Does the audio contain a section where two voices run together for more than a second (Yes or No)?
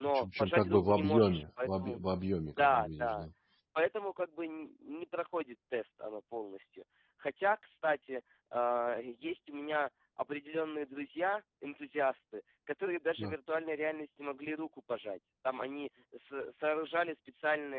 Yes